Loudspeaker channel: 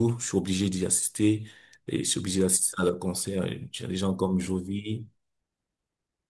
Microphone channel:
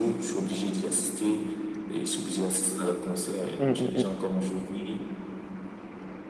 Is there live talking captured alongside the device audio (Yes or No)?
Yes